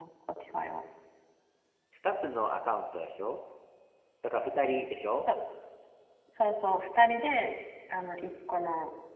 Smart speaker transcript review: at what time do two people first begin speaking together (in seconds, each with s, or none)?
none